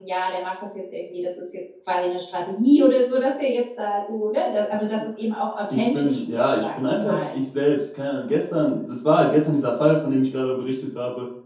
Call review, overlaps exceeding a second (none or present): present